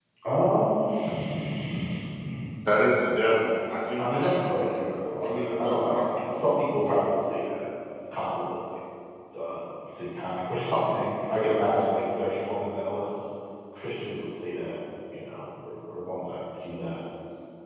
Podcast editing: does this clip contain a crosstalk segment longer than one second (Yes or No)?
Yes